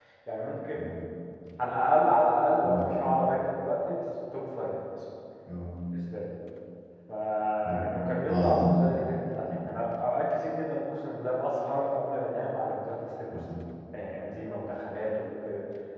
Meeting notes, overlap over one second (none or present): none